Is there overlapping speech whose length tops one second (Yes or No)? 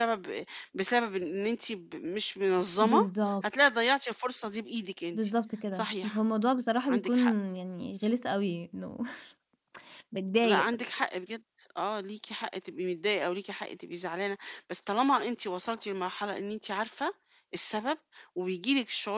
No